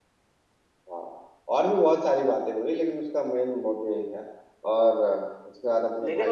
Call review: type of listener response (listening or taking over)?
taking over